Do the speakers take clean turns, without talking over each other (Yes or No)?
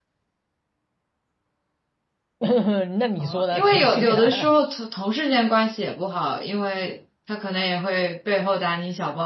No